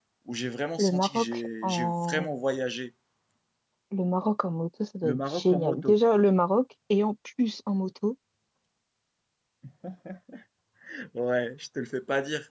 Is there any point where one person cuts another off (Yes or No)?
Yes